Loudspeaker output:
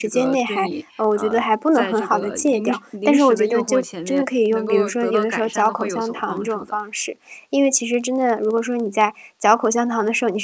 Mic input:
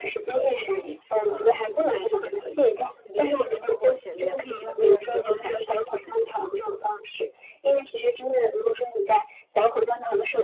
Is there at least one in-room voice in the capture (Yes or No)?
No